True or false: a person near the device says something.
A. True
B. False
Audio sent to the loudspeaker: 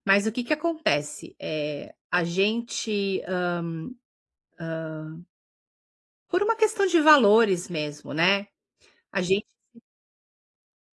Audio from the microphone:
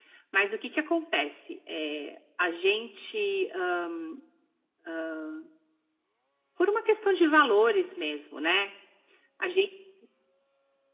B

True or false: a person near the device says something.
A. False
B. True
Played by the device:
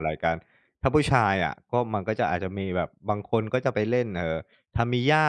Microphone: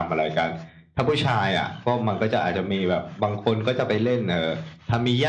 A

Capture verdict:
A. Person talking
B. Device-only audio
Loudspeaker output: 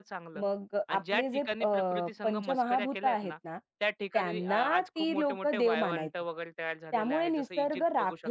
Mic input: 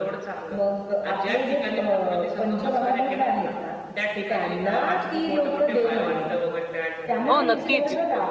A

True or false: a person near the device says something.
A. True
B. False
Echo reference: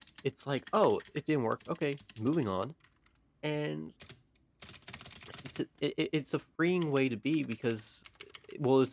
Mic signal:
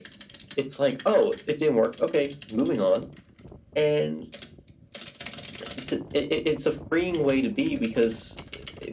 B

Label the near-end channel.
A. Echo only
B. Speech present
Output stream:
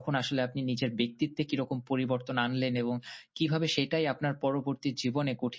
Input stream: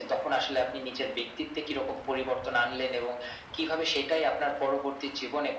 A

